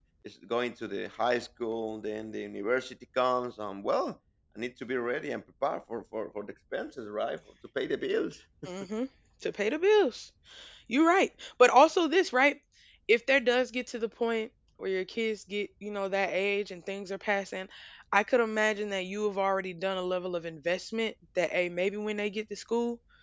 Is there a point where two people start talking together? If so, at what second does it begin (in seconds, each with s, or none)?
none